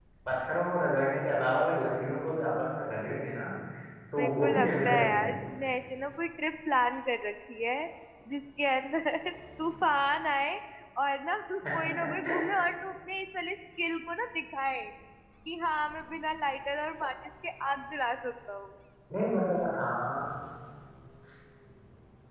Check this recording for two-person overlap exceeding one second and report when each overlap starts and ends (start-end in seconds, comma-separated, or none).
4.2-5.4